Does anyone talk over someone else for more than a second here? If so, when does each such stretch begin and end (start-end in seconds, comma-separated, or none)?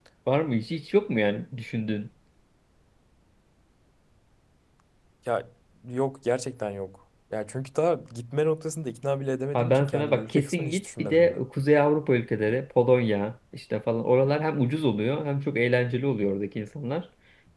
9.5-11.4